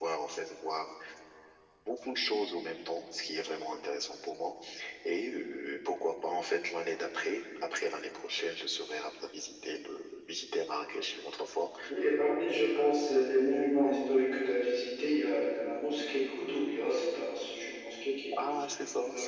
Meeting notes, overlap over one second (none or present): none